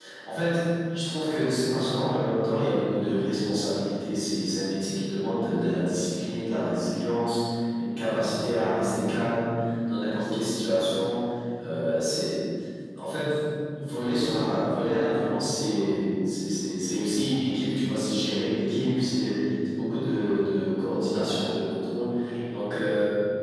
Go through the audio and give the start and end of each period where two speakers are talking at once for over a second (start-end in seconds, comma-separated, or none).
none